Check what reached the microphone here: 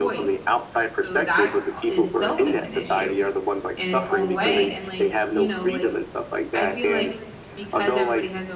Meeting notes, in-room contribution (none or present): present